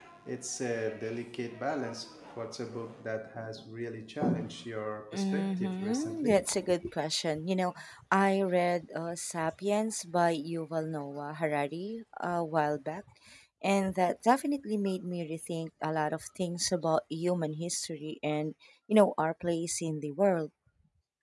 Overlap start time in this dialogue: 5.1 s

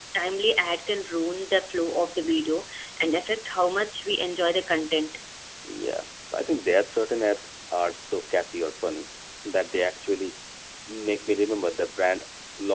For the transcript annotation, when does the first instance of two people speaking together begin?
none

